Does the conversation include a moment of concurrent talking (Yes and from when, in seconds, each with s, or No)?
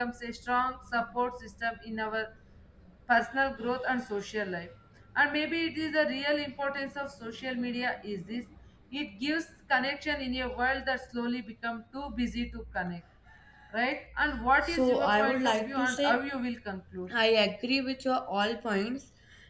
Yes, from 14.6 s